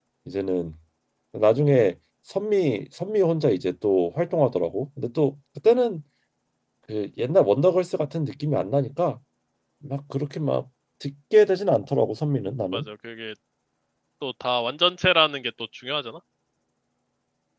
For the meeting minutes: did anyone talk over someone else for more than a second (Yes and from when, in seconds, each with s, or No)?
No